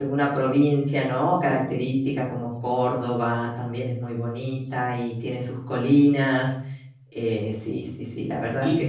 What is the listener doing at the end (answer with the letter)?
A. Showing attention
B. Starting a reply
B